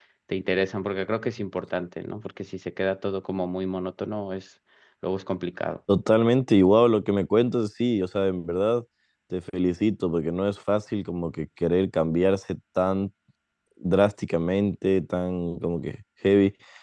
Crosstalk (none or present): none